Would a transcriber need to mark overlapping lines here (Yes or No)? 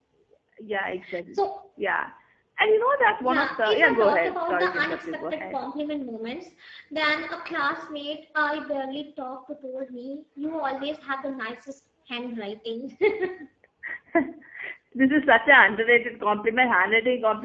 Yes